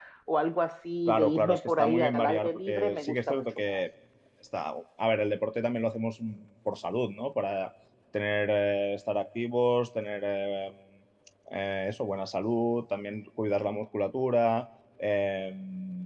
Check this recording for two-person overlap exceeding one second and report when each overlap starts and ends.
1.1-3.8

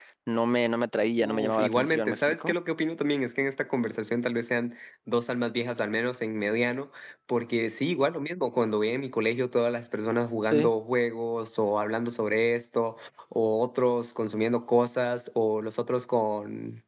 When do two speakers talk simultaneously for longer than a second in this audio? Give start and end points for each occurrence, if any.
1.2-2.5

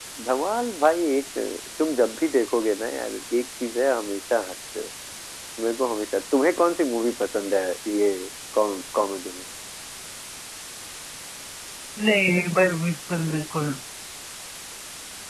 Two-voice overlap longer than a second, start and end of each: none

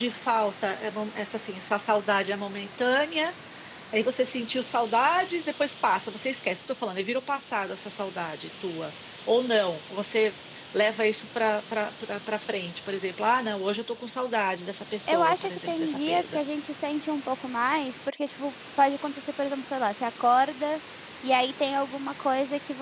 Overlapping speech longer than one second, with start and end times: 15.1-16.4

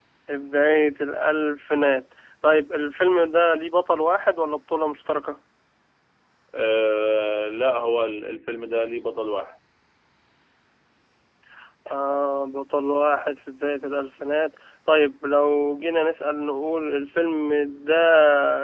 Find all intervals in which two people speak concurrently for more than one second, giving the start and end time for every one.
none

